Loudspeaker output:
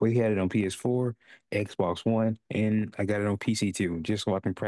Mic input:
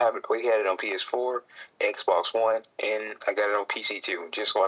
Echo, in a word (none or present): present